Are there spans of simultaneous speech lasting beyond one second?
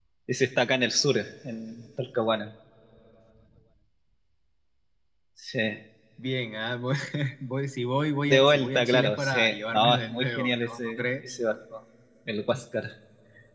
Yes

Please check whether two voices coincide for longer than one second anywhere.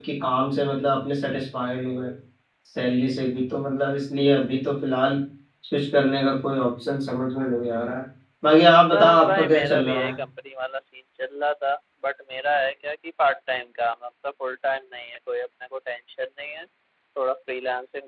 Yes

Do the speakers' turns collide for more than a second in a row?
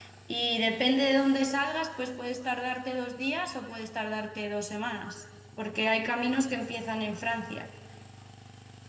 No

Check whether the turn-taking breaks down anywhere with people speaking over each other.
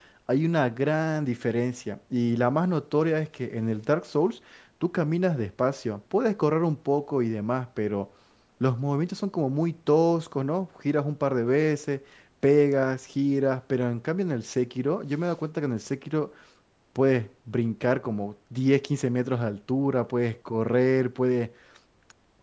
No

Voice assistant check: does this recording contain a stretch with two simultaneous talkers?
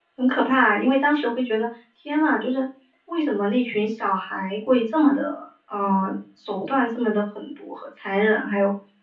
No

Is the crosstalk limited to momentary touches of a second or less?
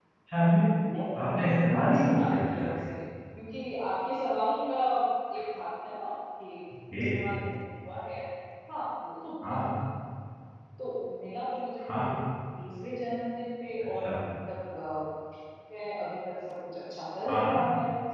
No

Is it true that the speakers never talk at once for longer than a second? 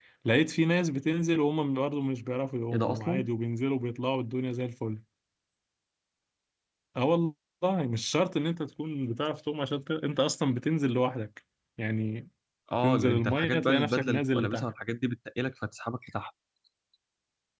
No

